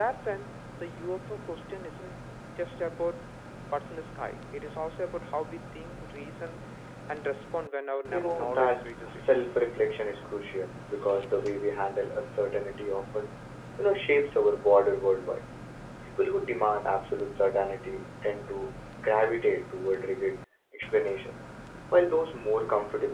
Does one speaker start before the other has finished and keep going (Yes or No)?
Yes